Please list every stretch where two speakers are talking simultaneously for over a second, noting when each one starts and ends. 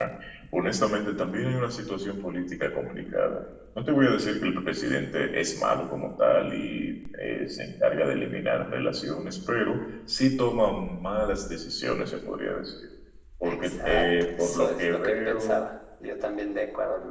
13.4-15.5

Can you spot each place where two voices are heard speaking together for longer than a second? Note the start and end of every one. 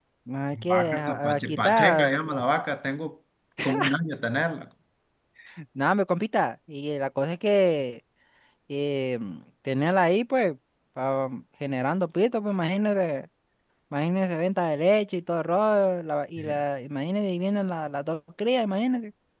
0.7-2.1

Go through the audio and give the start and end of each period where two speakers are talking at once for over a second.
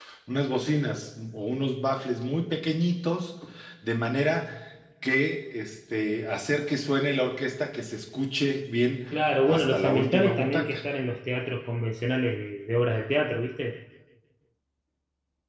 9.4-10.8

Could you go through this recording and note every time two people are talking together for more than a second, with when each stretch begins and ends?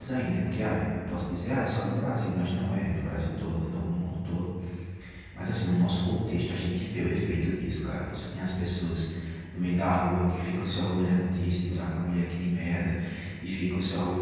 none

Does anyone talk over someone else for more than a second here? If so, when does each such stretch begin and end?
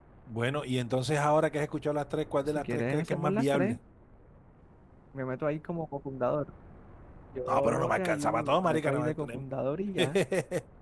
2.6-3.8, 7.5-9.3

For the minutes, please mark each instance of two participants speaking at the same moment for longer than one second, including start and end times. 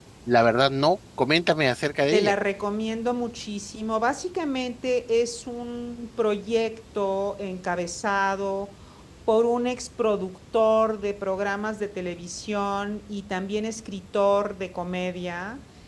none

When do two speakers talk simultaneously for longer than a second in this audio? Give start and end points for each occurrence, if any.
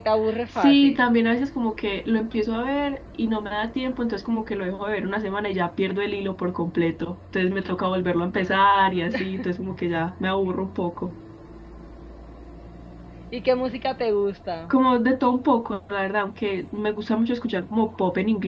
none

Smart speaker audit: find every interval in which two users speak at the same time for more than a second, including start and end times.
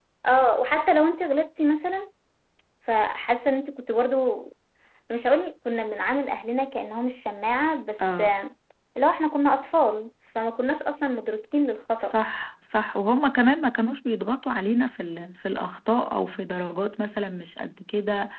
none

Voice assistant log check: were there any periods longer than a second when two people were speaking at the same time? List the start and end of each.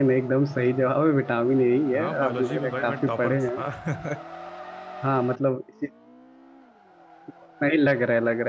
1.9-3.5

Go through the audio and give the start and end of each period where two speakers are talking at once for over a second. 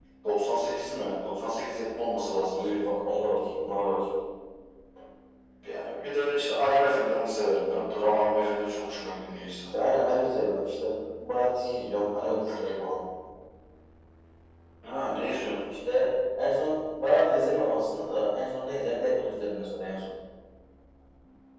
none

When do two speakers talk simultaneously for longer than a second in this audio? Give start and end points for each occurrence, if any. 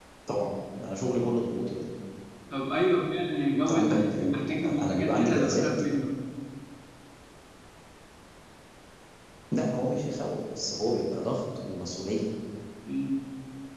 3.6-5.7

